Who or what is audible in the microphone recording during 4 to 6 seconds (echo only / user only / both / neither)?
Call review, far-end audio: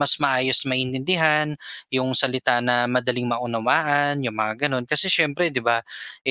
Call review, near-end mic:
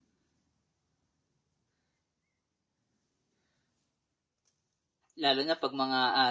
user only